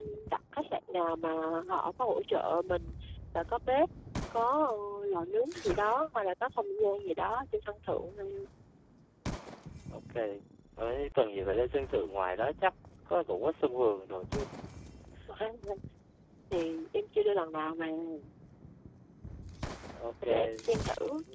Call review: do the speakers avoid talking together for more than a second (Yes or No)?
Yes